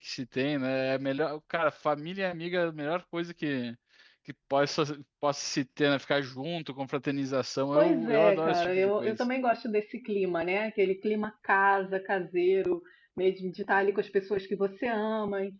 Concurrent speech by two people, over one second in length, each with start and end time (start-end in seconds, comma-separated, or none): 7.7-9.3